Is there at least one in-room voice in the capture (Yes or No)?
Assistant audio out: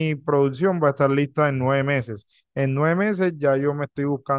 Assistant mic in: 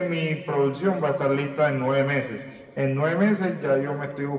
No